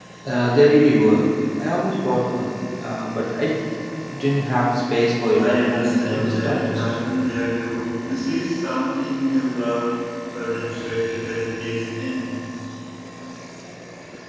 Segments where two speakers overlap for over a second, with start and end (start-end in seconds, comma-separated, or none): 5.3-6.9